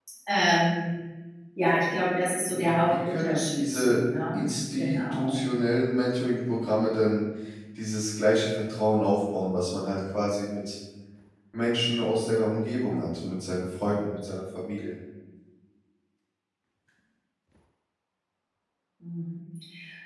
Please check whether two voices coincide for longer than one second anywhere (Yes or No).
Yes